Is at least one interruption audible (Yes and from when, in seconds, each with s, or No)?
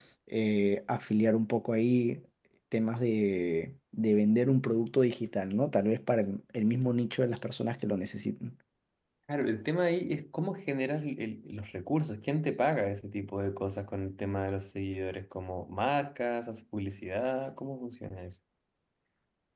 No